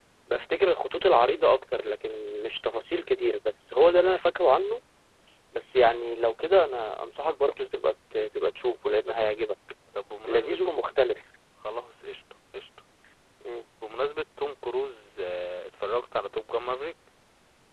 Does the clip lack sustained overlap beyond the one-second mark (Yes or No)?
Yes